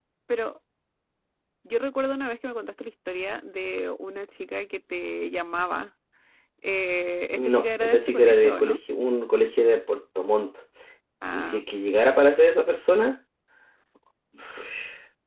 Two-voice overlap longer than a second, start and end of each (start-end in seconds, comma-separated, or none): 7.3-8.8